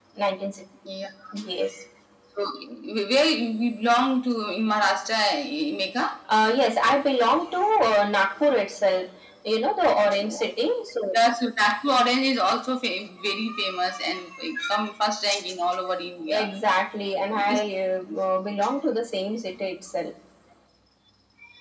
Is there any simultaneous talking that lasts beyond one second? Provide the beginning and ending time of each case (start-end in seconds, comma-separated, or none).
none